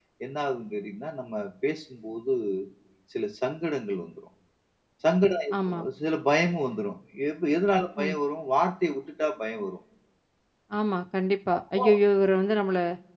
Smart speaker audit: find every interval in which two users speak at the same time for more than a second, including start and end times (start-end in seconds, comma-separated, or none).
none